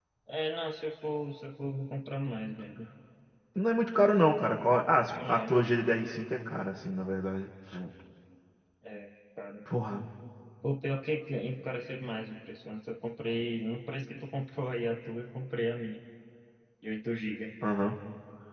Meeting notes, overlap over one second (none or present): none